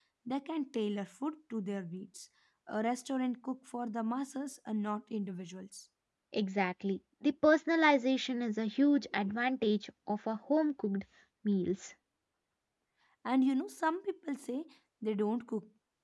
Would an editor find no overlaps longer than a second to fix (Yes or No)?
Yes